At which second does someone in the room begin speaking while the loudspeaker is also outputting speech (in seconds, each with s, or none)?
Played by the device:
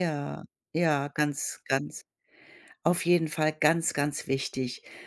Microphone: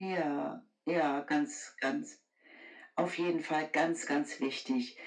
none